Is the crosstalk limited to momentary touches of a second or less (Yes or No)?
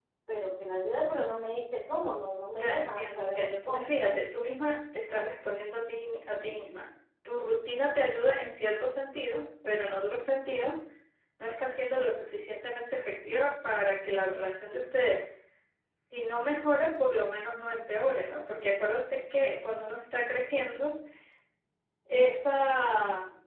No